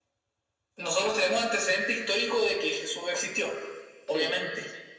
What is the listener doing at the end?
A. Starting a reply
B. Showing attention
B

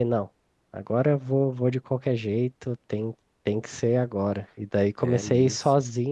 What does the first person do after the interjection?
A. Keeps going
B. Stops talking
A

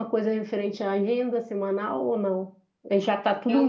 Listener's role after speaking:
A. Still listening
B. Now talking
A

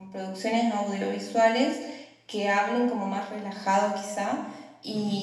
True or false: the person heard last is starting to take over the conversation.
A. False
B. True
A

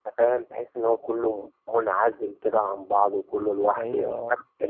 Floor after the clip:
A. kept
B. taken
A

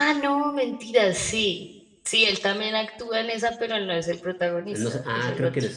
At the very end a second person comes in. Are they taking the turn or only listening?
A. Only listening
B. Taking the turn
B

